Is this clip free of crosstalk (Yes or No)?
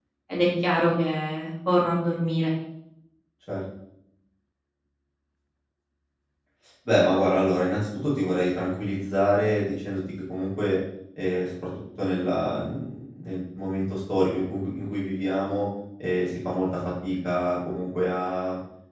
Yes